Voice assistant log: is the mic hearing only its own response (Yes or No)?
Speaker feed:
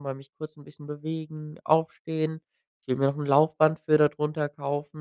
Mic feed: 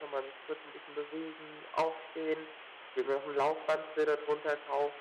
Yes